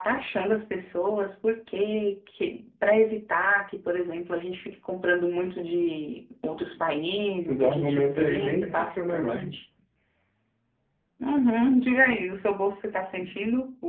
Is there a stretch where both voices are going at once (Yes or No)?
Yes